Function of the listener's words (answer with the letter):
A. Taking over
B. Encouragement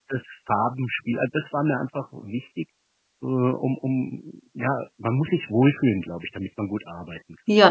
A